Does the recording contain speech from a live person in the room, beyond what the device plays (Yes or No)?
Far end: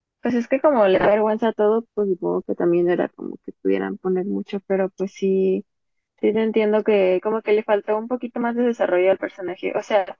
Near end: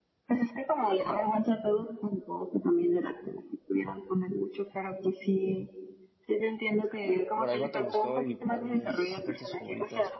Yes